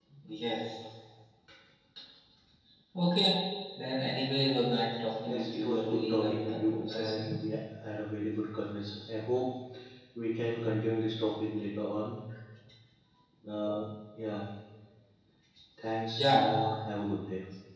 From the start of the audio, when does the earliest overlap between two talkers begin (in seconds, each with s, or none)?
5.2 s